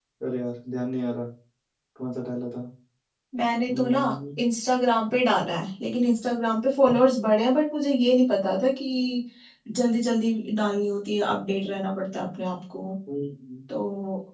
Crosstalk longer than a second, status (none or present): none